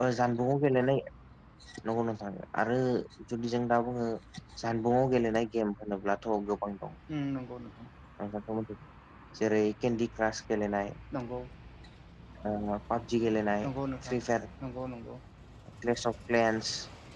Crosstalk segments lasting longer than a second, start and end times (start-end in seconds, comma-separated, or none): none